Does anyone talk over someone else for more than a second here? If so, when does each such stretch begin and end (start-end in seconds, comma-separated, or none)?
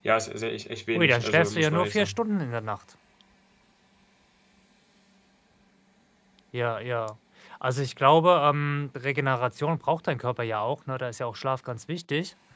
0.9-2.2